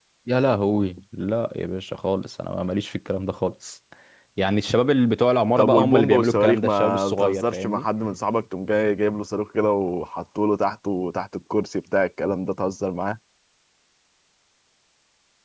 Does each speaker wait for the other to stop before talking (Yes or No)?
No